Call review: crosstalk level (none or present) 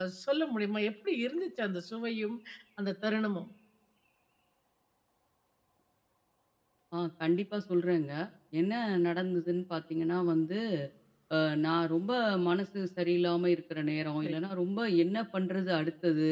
none